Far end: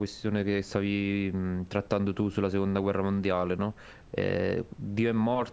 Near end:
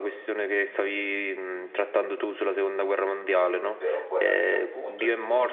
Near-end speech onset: 3.7 s

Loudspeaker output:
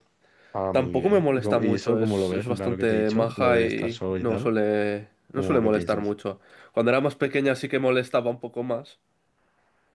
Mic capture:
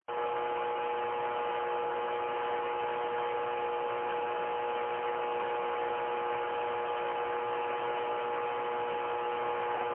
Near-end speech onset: none

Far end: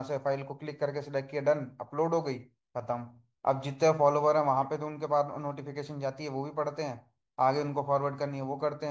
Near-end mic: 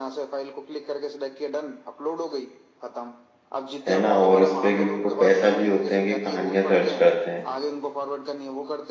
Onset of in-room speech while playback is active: 3.9 s

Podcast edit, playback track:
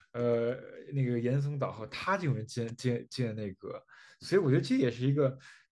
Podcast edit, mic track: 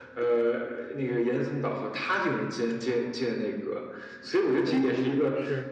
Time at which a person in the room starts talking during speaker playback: 4.6 s

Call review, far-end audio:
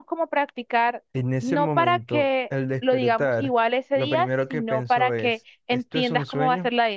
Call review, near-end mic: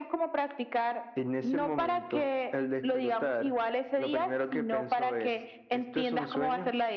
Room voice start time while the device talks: none

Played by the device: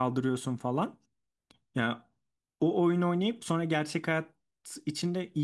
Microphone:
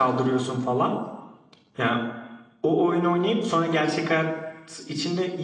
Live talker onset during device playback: none

